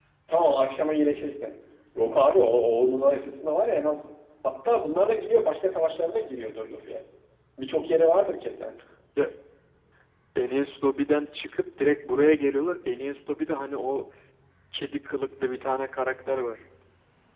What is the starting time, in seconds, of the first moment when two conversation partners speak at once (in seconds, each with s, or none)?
none